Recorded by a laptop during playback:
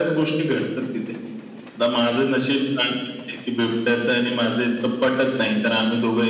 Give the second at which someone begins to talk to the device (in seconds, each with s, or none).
none